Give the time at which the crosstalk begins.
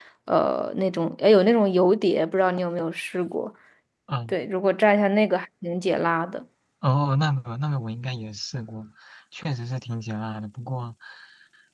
none

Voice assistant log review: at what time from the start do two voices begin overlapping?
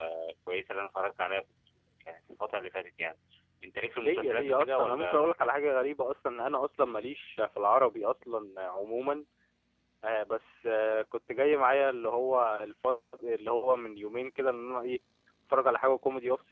4.0 s

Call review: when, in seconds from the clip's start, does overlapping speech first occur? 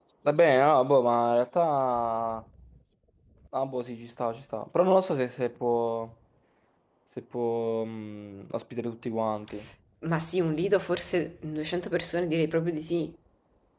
none

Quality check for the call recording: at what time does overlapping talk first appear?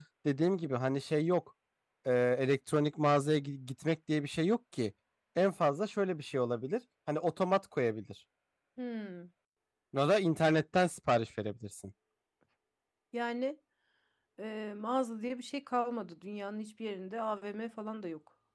none

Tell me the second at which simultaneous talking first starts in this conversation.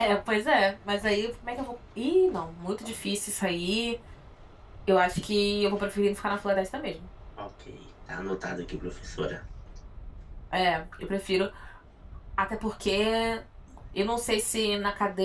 none

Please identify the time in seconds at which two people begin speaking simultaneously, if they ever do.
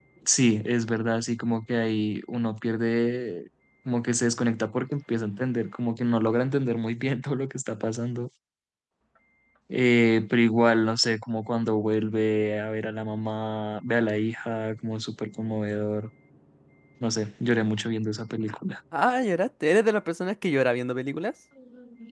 none

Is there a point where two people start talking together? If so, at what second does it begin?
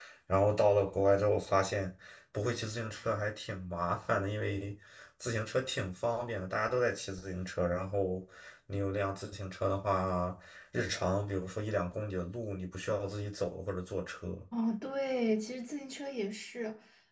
none

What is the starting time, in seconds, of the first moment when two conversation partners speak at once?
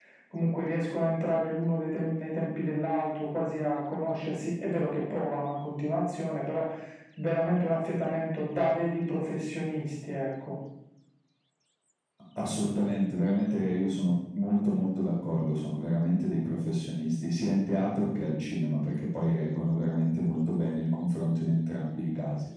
none

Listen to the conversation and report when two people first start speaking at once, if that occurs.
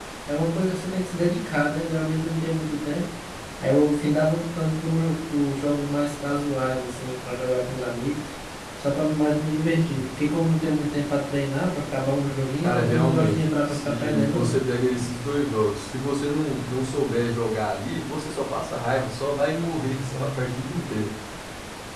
12.6 s

